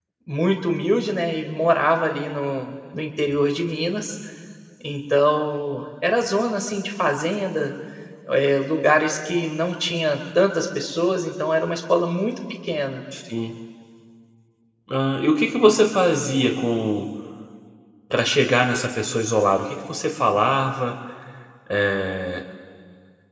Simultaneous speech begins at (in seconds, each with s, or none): none